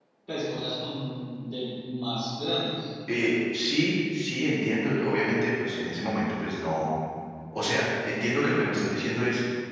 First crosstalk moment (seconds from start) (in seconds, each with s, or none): none